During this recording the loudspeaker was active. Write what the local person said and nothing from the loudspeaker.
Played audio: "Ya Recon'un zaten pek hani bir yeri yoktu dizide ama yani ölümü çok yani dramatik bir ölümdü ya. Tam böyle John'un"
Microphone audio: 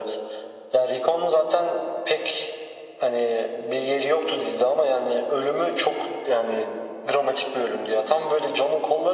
none

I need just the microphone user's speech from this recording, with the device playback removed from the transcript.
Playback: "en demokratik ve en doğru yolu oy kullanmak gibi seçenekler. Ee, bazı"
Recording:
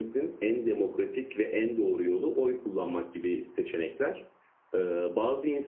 none

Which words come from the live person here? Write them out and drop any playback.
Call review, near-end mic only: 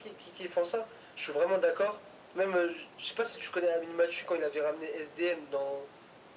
none

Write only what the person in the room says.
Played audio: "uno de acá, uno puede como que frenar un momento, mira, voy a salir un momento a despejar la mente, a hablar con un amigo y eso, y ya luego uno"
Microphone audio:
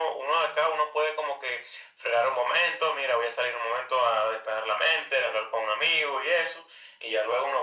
none

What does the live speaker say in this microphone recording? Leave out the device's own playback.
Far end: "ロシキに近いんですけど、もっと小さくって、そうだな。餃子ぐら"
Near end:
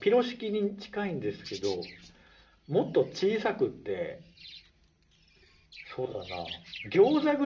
none

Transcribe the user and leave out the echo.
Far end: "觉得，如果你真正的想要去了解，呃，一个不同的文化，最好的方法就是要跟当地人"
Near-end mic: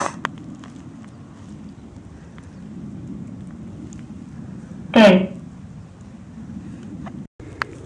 对。

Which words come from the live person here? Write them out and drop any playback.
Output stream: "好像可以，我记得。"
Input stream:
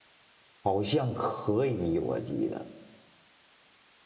none

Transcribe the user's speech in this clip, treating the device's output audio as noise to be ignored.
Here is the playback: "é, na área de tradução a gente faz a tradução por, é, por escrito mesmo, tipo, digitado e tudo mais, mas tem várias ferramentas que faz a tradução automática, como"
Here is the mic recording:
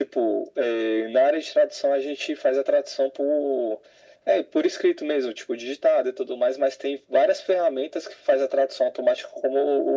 none

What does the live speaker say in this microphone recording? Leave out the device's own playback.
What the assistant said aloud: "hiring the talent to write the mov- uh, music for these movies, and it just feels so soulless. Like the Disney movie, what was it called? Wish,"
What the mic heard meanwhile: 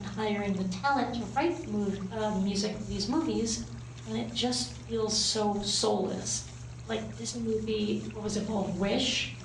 none

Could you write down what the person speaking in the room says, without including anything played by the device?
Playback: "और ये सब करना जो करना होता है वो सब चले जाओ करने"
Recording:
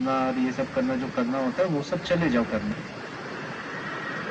none

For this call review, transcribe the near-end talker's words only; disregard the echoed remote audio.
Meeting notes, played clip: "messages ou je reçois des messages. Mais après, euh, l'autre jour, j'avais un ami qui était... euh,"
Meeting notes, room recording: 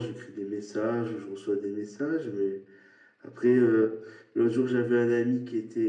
none

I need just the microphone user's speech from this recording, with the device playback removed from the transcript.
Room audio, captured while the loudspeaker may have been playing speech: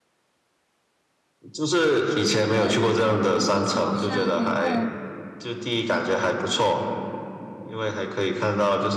对，它就是一座小山，然后

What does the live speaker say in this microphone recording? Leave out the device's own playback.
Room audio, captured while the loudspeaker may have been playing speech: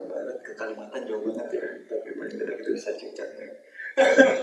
none

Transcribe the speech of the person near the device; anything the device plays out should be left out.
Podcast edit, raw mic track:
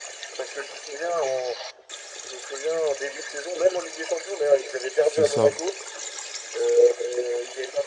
c'est ça.

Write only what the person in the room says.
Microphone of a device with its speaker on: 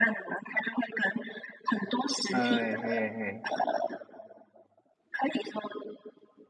哎哎哎，

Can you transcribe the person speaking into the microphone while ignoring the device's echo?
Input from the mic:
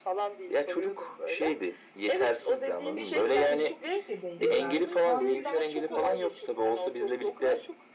Beşinci sınıfta çok küçük de değiliz artık. Tahammülüm sıfır.

